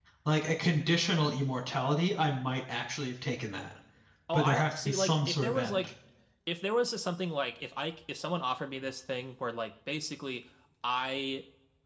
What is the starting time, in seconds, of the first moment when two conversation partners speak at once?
4.3 s

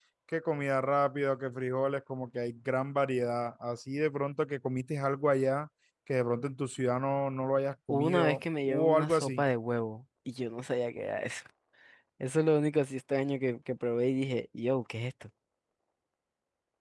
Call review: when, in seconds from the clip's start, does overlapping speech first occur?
7.9 s

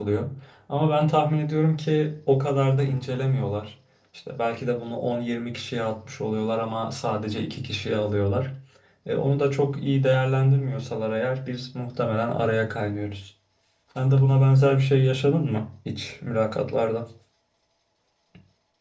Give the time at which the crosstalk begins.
none

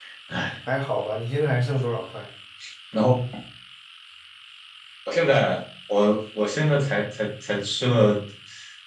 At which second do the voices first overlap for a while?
none

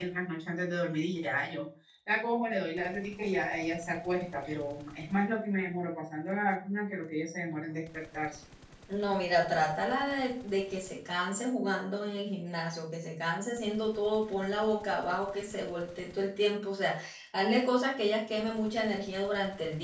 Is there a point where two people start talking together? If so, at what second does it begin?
none

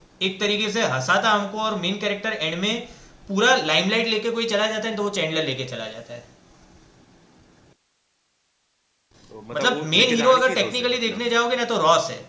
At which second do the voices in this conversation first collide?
9.5 s

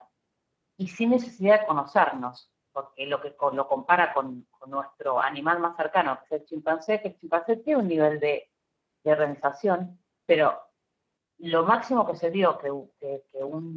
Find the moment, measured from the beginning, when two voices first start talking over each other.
none

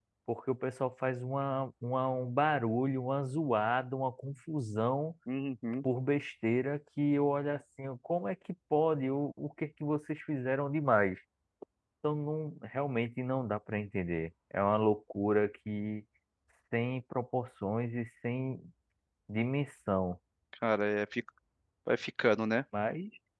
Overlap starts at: none

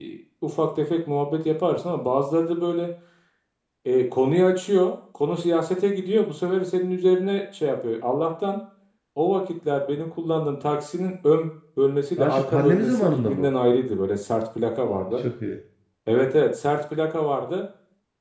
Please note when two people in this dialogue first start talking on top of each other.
12.2 s

